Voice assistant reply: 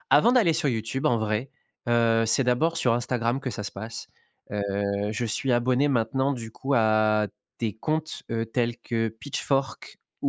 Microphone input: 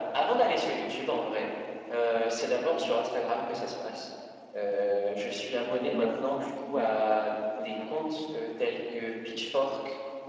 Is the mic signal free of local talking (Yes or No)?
No